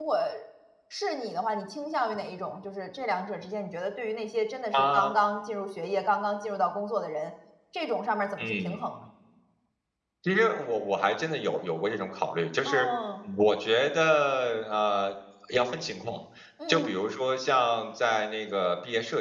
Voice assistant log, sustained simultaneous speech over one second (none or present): none